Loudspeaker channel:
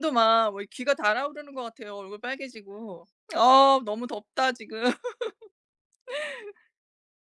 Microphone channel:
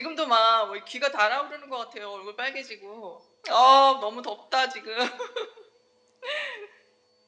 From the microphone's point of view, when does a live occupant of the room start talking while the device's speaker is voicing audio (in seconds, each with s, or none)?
none